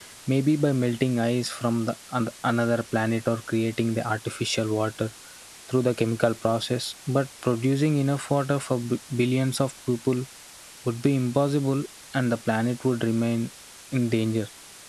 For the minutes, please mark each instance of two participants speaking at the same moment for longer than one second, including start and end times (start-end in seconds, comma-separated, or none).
none